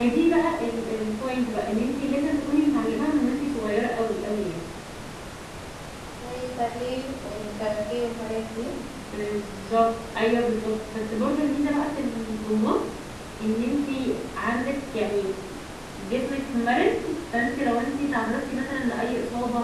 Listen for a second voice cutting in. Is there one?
No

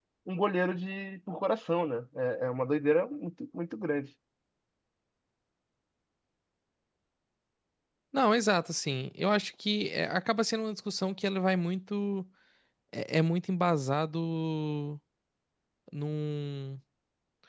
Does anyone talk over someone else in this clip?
No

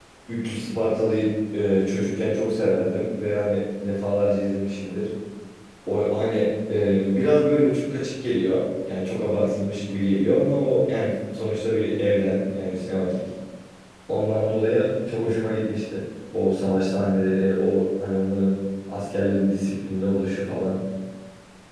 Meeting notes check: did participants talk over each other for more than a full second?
No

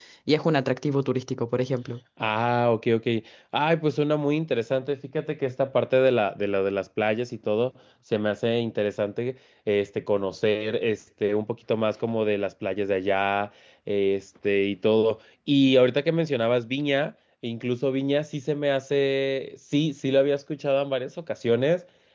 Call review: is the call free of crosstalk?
Yes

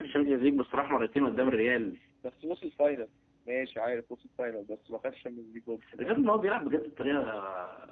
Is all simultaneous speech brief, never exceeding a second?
Yes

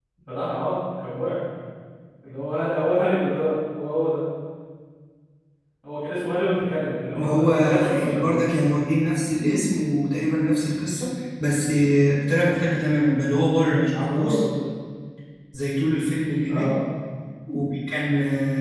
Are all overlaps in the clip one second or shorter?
No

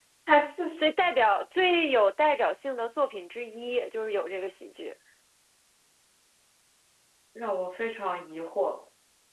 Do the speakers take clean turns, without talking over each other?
Yes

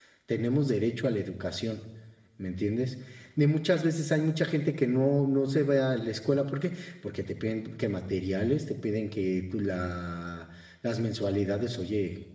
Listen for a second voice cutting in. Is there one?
No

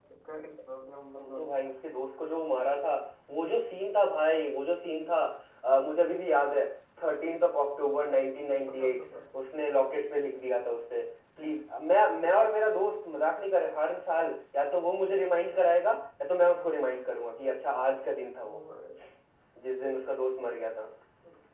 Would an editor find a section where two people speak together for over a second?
No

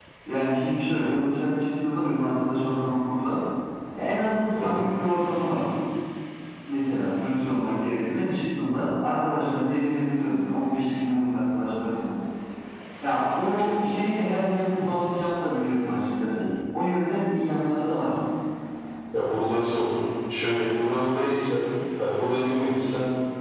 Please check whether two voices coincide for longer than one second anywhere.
No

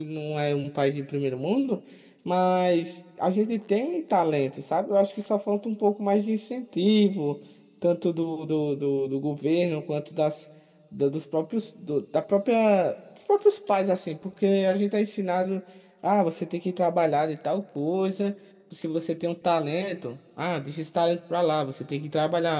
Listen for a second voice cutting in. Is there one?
No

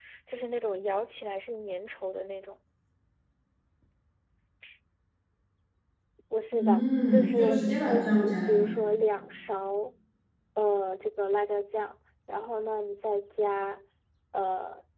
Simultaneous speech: Yes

